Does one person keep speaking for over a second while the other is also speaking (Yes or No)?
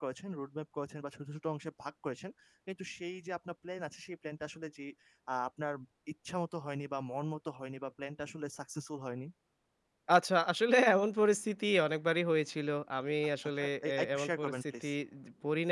Yes